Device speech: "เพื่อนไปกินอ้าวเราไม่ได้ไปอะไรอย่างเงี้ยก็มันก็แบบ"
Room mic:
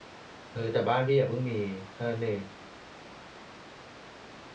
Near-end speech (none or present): present